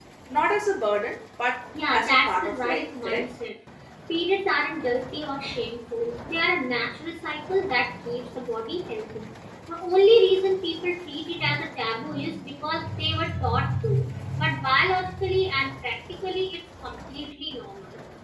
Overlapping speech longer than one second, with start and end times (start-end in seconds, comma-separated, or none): 1.9-3.3